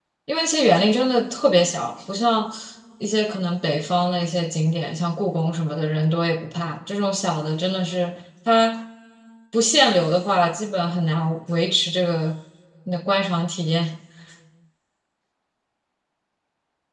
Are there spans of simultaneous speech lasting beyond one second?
No

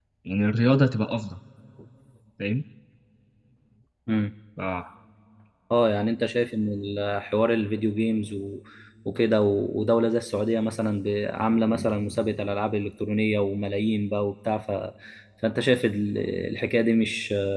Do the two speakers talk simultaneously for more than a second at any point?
No

